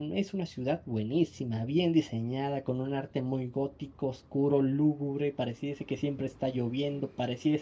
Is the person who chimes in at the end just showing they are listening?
Yes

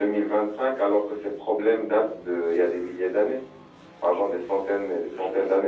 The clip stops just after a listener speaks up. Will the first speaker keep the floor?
No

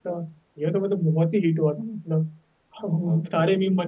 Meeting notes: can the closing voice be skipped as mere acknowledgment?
Yes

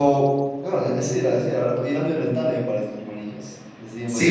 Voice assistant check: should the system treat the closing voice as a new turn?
Yes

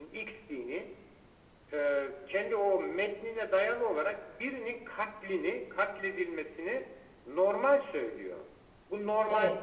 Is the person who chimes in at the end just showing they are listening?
Yes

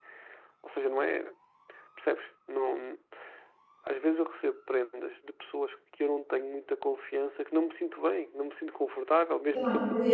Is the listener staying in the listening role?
No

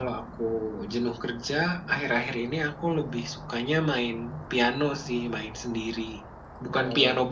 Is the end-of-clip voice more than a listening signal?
No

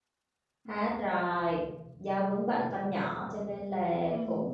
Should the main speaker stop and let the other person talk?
No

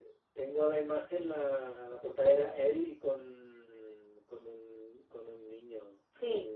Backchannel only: No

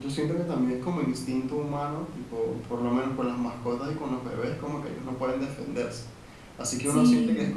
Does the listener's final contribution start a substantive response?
No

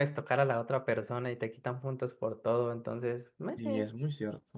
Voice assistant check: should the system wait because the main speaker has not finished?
No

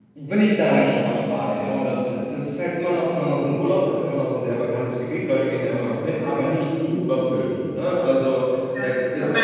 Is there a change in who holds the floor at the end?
Yes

